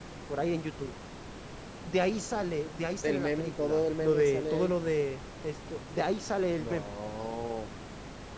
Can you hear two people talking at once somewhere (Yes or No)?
Yes